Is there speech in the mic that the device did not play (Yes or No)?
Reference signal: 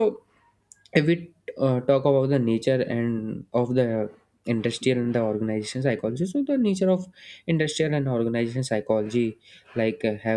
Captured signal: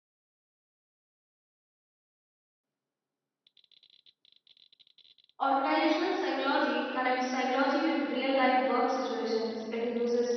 Yes